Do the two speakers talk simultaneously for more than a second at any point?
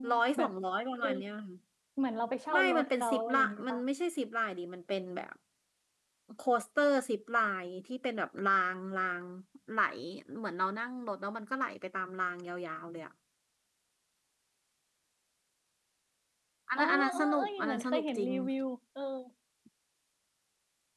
Yes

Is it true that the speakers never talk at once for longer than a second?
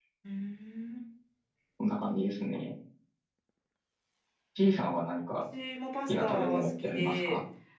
No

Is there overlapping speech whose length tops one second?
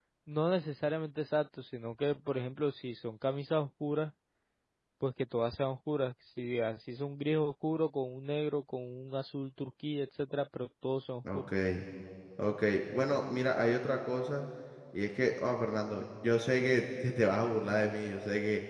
No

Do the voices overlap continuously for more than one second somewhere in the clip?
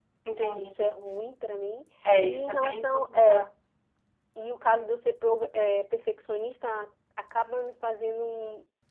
Yes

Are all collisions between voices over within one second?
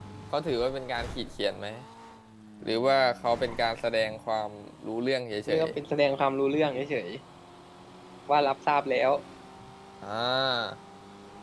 Yes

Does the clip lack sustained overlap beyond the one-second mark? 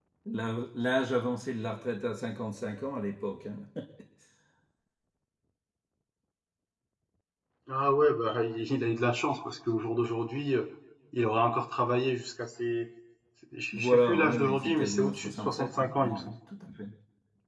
No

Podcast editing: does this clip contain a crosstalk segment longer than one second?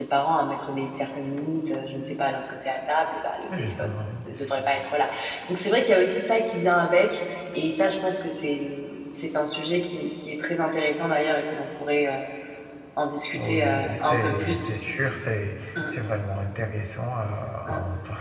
Yes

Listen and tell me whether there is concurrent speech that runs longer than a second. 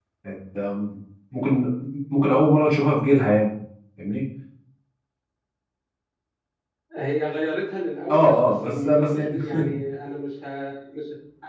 Yes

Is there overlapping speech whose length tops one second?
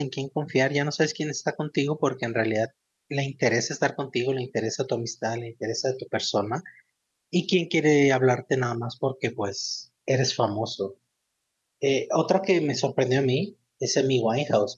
No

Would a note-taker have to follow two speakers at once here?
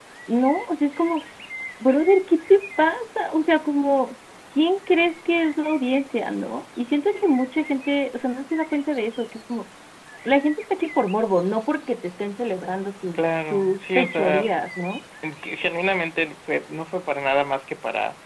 Yes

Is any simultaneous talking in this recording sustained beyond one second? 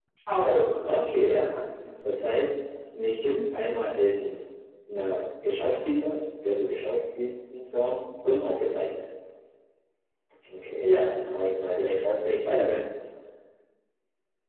No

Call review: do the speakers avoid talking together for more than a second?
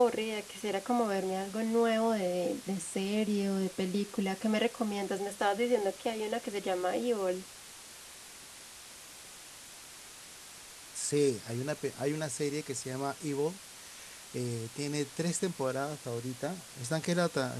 Yes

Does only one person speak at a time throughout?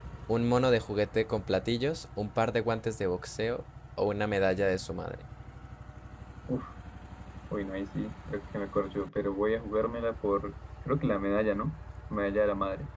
Yes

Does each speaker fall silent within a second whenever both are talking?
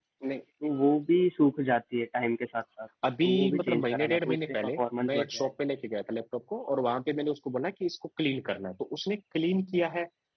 No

